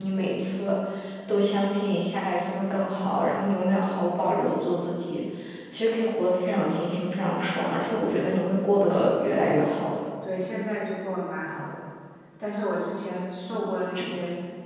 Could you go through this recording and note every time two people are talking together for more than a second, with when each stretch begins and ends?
none

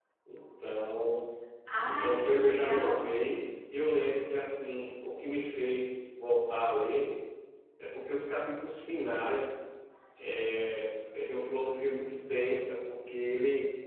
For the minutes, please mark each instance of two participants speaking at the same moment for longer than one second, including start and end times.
1.9-3.3

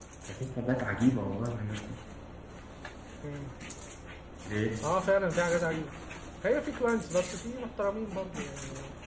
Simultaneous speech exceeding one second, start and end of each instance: none

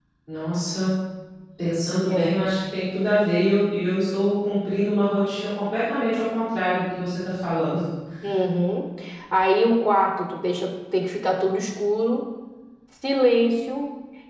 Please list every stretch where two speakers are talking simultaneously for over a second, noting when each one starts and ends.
none

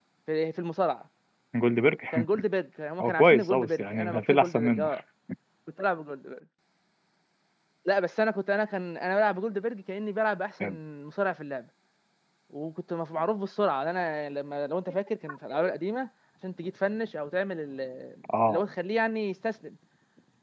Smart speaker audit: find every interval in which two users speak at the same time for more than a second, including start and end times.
3.0-4.9

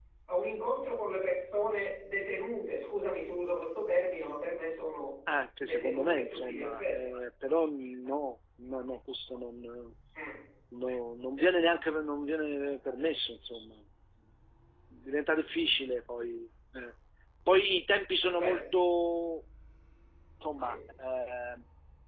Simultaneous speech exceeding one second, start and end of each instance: 5.6-7.0

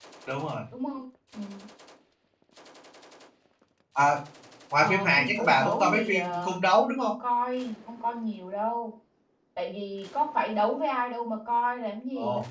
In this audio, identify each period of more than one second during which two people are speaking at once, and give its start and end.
4.8-6.6

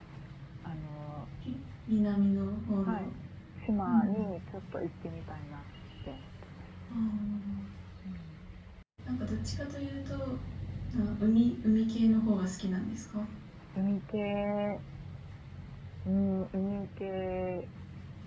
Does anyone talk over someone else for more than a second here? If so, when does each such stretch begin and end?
none

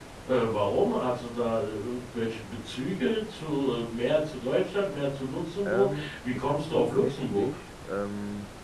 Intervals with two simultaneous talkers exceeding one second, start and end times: 5.6-7.5

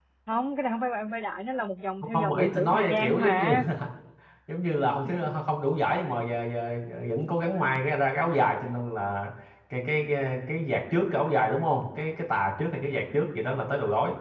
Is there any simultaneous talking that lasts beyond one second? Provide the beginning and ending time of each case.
2.1-3.5

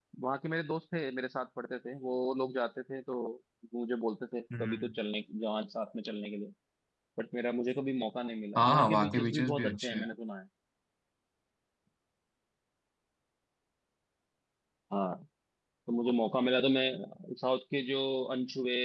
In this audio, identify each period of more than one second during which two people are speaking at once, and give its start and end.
8.6-10.0

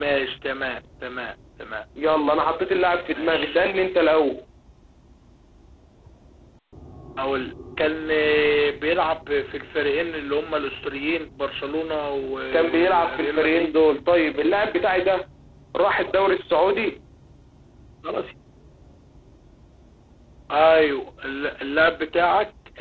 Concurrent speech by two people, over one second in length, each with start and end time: 12.5-13.7

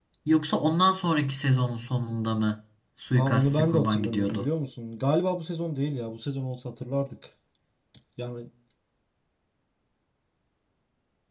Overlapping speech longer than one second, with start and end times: 3.1-4.5

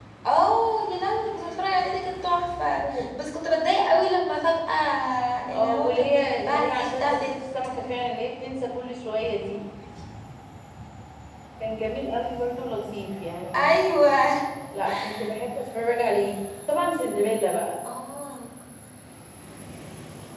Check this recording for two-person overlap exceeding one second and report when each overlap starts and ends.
5.5-7.3

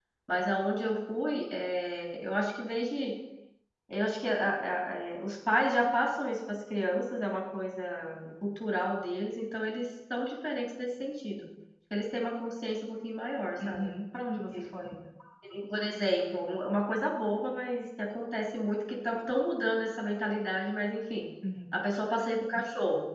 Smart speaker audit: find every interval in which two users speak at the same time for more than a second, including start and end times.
none

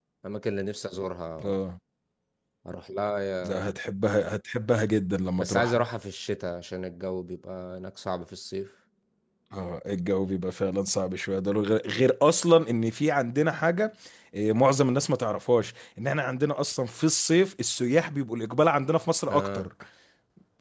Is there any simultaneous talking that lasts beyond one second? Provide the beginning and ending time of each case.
none

